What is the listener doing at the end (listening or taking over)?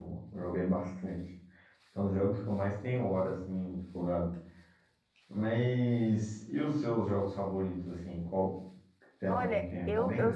taking over